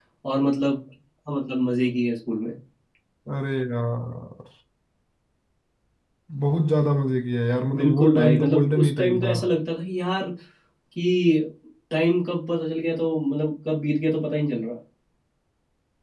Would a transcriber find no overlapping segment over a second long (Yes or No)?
No